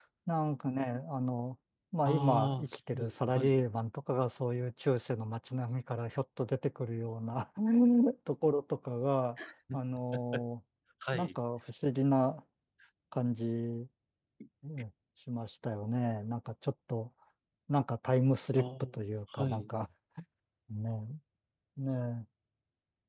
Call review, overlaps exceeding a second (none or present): present